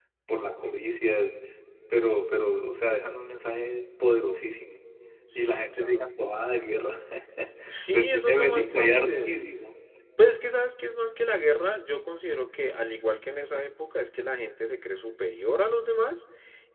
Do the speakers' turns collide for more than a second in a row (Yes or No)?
Yes